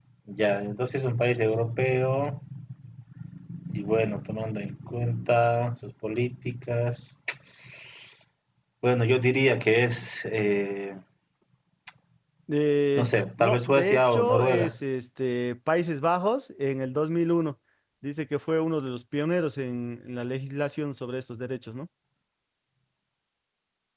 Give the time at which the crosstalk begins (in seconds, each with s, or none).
13.0 s